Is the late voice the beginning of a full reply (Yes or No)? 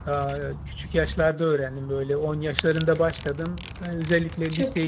No